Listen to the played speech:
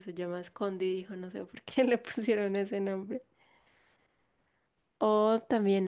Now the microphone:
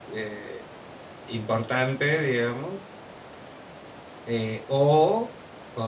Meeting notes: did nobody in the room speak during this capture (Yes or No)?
No